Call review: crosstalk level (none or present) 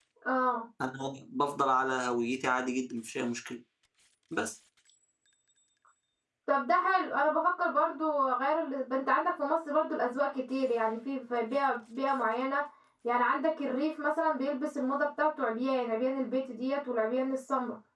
none